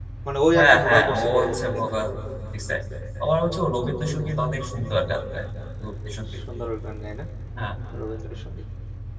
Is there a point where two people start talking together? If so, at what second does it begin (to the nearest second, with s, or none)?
1 s